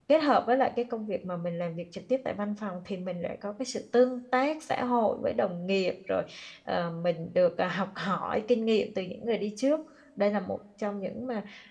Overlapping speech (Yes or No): No